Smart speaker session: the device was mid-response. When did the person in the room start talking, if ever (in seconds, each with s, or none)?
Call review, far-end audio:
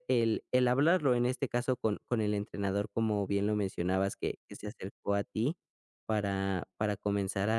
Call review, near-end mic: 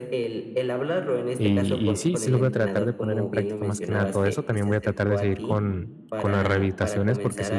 1.3 s